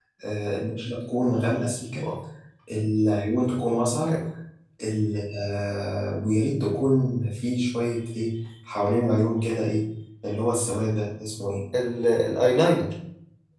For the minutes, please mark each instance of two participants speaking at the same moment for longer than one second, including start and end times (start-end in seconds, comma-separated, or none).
none